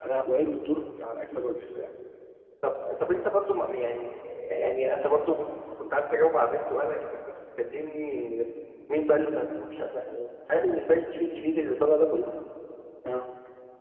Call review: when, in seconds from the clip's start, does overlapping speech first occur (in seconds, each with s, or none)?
none